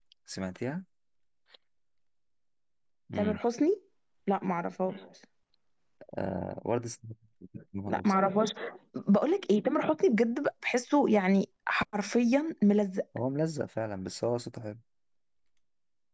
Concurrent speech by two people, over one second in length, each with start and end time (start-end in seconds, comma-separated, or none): none